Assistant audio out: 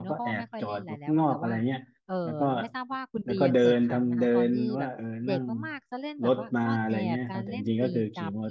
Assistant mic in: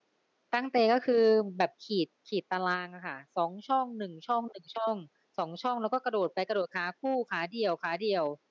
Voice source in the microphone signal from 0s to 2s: user only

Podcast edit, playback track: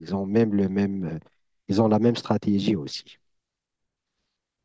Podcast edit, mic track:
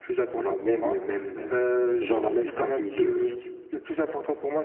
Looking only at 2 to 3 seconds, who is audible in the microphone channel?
both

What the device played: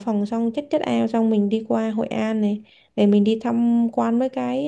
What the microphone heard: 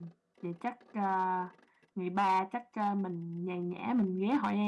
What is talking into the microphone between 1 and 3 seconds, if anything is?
user only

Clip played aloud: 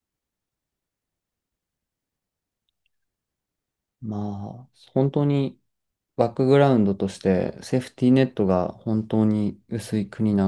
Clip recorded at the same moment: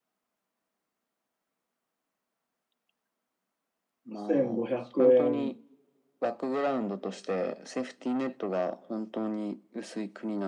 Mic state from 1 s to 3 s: neither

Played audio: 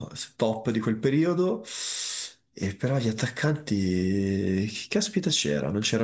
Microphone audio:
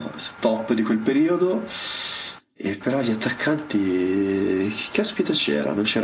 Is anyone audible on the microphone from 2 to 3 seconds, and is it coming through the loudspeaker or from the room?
echo only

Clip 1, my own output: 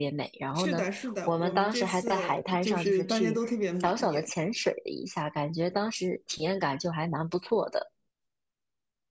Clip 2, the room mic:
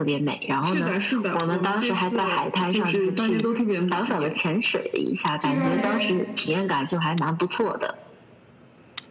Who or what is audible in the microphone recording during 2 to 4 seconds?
echo only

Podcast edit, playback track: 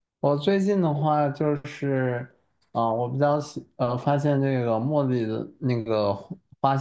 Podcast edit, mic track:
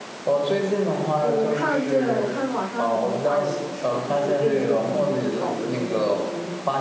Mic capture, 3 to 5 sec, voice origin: both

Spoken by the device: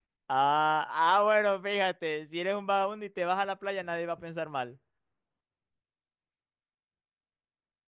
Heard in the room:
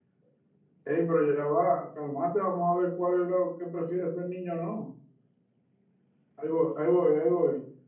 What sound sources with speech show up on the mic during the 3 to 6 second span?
user only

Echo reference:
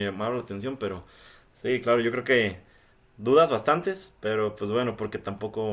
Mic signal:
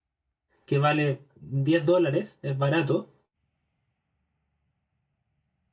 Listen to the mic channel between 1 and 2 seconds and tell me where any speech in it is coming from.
user only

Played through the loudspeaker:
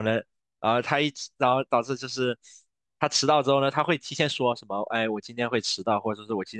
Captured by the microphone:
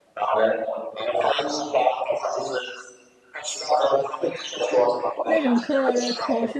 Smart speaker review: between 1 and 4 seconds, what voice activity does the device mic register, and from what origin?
echo only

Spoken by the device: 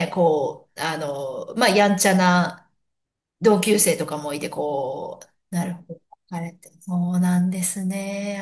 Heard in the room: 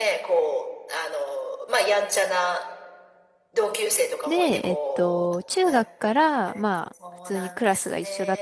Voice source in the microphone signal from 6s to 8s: both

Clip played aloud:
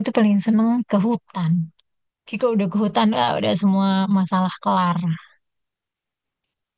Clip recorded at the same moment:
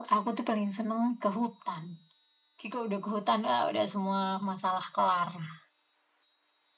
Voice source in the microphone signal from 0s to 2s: echo only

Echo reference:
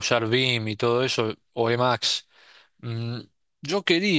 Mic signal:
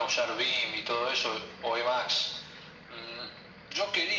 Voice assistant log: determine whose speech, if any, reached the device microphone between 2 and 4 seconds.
echo only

